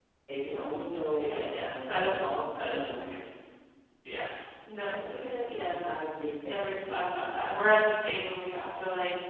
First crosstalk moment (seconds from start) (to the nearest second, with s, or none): 1 s